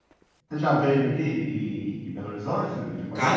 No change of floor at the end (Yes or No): No